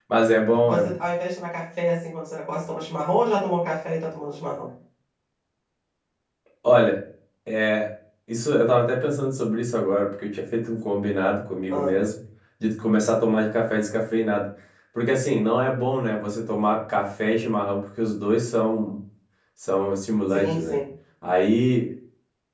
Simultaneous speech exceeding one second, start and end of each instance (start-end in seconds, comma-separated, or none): none